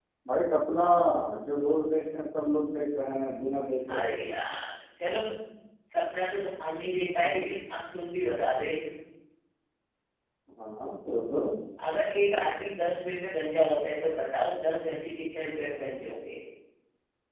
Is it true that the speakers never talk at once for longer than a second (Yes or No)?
Yes